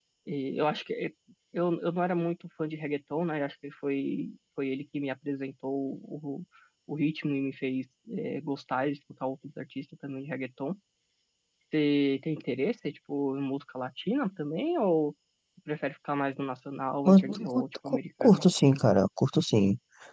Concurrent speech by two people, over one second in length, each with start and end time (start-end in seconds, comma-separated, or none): 17.1-18.4